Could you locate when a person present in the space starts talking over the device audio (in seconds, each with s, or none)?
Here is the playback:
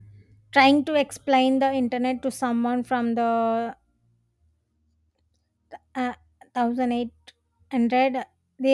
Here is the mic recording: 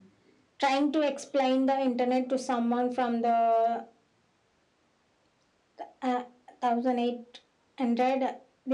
none